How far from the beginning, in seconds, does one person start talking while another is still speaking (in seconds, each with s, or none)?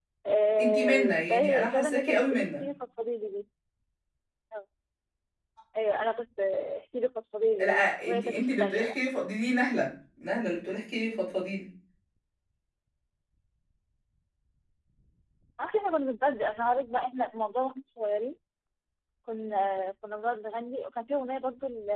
0.6 s